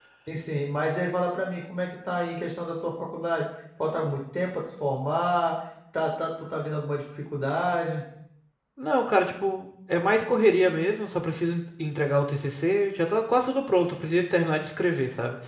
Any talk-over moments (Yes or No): No